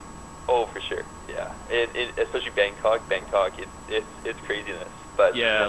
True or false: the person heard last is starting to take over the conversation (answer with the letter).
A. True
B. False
A